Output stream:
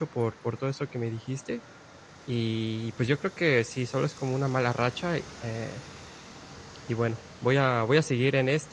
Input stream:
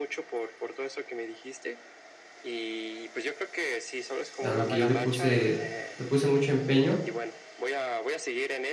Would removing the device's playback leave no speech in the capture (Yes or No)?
No